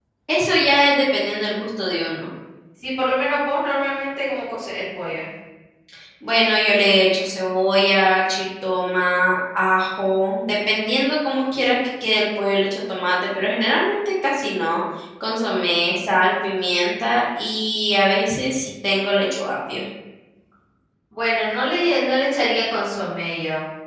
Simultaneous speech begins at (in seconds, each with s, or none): none